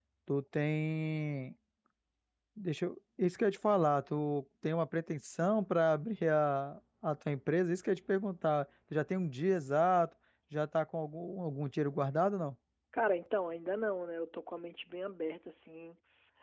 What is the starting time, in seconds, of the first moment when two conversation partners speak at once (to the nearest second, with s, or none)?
none